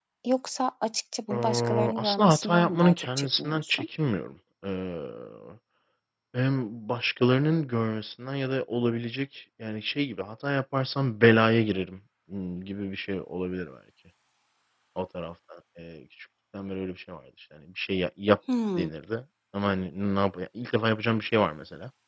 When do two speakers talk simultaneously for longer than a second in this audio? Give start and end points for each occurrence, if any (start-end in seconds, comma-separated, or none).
1.3-3.9